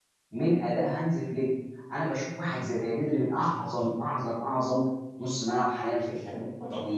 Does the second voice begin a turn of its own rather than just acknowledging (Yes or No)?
No